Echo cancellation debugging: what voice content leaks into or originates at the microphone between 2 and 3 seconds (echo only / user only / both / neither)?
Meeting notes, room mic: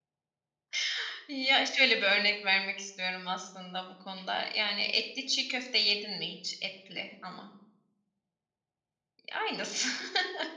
user only